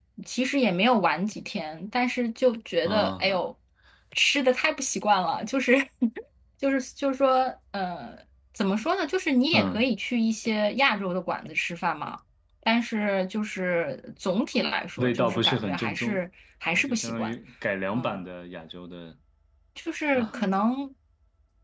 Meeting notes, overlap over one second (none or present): present